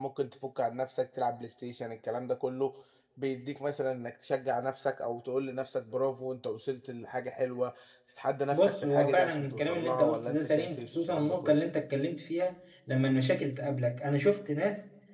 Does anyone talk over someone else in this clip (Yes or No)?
Yes